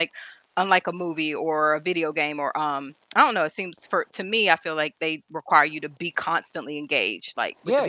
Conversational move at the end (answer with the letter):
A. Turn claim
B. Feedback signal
A